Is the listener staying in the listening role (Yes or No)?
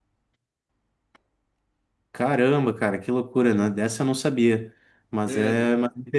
Yes